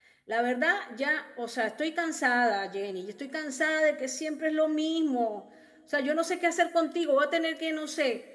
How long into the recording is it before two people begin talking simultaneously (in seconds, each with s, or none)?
none